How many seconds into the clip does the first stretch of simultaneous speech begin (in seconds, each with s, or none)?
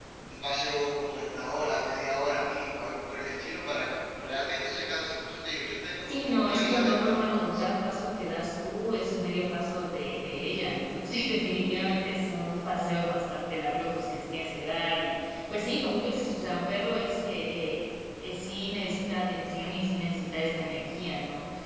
6.0 s